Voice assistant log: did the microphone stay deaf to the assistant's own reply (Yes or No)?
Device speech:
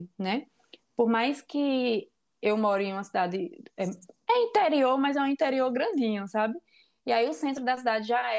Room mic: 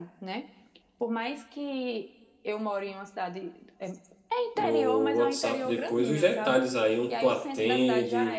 No